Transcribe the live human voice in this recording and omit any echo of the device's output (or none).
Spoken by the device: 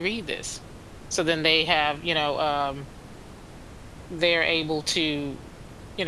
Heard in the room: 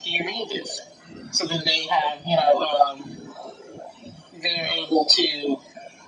none